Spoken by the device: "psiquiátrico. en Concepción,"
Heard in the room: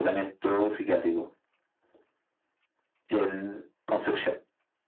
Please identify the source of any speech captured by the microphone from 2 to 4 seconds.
echo only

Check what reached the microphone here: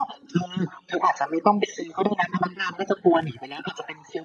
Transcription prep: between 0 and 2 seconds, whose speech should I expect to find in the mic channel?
echo only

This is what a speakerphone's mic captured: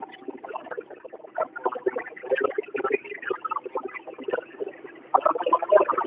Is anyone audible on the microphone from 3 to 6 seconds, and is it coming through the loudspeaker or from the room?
echo only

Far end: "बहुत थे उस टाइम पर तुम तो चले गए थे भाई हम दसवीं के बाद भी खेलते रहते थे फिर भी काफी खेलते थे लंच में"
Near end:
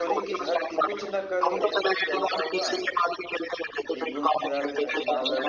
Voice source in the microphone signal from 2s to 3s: both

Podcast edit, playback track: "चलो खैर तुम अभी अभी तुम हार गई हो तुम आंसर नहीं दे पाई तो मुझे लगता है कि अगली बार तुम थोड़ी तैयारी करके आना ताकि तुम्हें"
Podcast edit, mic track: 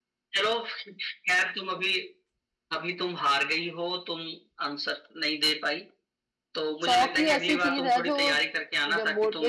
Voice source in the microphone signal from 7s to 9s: both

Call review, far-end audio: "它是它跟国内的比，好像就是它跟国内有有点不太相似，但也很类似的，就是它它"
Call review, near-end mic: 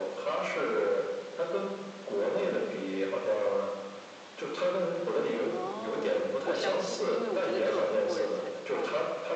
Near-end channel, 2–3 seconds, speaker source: echo only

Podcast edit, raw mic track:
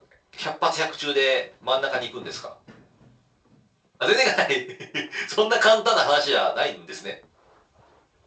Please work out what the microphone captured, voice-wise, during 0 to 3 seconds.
echo only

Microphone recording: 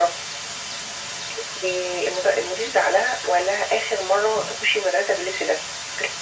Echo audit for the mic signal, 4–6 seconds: echo only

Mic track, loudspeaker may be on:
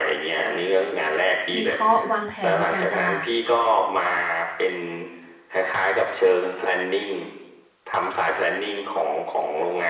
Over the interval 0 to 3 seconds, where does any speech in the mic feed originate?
both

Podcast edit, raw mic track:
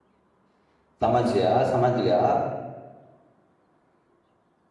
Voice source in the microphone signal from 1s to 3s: user only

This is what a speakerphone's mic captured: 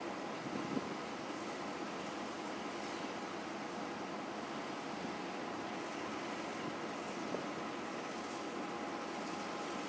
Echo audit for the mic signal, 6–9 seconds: neither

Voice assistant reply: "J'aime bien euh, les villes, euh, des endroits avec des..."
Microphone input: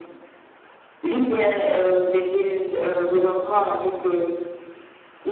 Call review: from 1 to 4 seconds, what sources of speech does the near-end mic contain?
echo only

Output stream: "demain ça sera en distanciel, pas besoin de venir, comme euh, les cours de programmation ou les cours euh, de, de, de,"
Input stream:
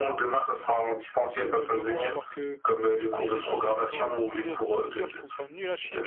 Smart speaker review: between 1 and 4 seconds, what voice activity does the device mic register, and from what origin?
both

